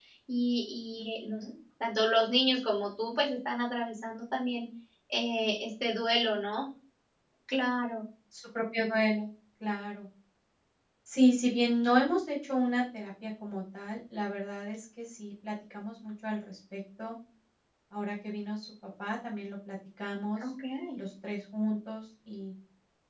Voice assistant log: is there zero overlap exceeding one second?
Yes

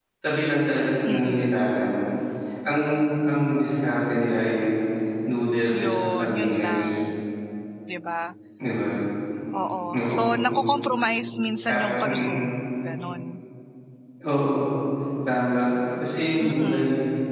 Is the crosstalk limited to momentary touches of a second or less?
No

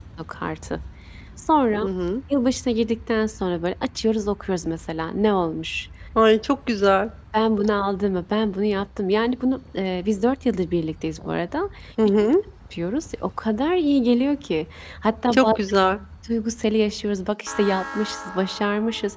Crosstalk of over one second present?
No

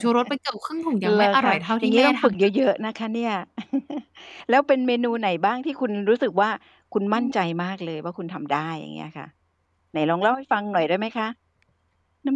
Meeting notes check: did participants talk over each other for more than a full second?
Yes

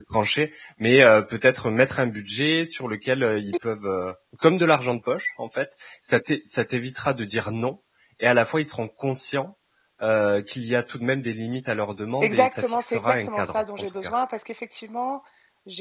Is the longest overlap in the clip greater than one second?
Yes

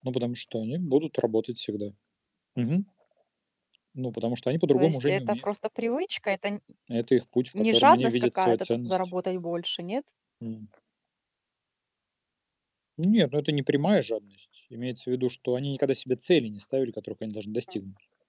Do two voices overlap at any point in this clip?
Yes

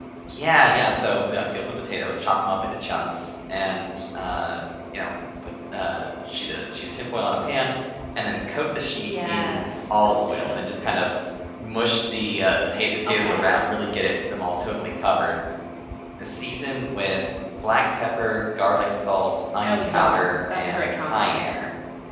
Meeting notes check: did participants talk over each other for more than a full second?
Yes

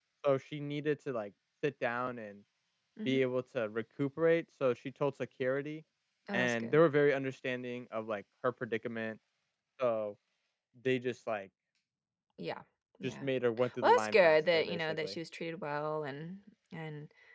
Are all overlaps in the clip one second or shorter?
No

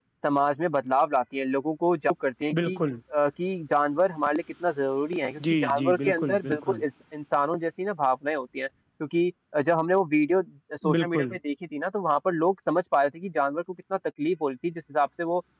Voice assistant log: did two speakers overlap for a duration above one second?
Yes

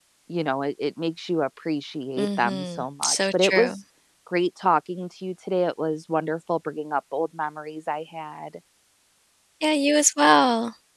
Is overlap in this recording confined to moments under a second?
No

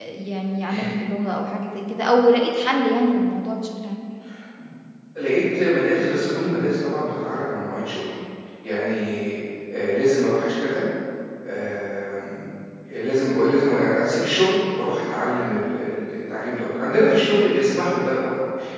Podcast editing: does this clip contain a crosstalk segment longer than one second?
No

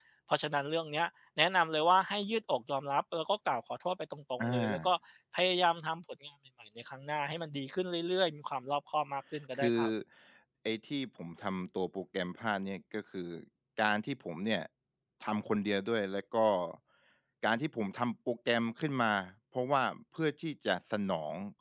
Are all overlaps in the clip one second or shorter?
Yes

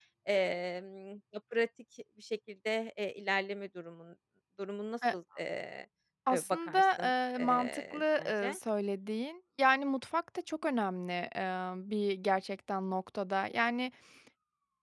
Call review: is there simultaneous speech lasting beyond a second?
Yes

